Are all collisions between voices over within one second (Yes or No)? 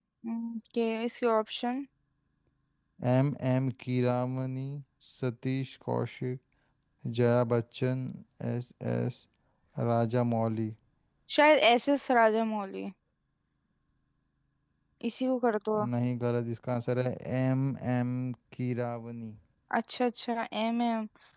Yes